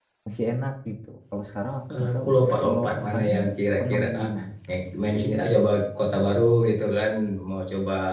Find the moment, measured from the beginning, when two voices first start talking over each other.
2 s

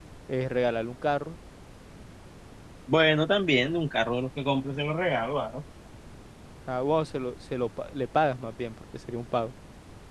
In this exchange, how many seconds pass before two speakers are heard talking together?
none

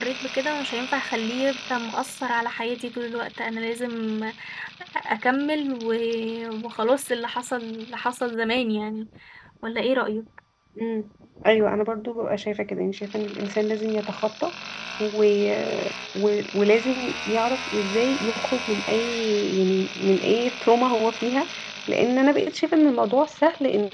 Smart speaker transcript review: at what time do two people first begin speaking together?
none

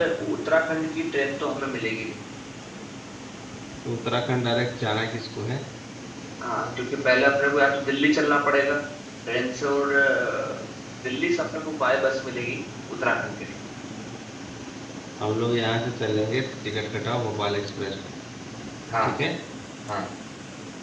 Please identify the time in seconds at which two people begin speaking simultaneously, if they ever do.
none

